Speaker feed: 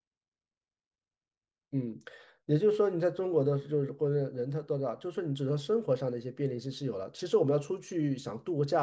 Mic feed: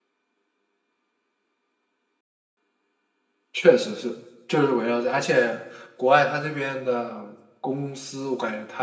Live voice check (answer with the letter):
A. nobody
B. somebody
B